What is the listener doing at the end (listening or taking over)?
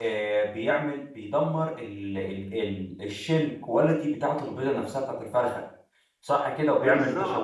listening